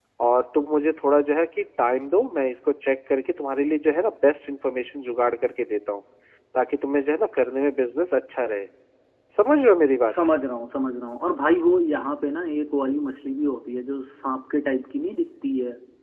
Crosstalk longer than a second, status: none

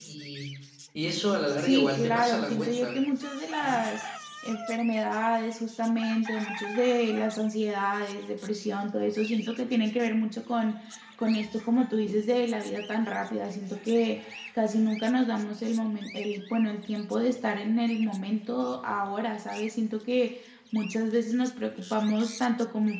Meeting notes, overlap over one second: present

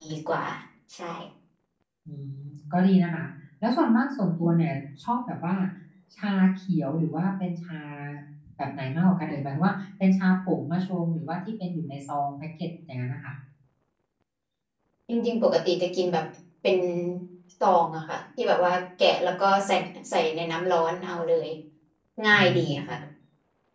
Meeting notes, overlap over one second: none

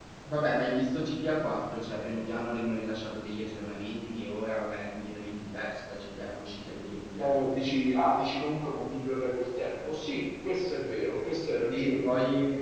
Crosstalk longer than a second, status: none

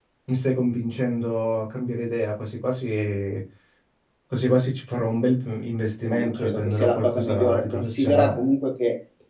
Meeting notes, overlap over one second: present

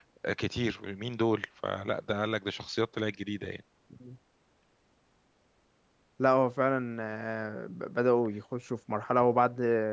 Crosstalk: none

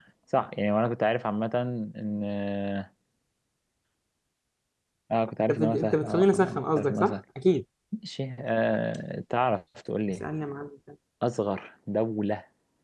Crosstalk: present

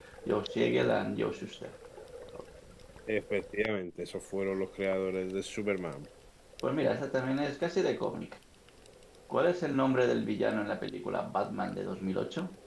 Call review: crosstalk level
none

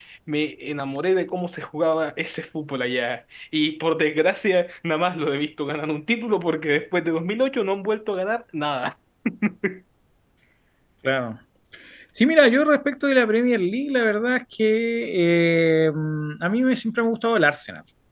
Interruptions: none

